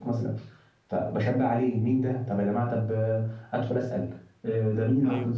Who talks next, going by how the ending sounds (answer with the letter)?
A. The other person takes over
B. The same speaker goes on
B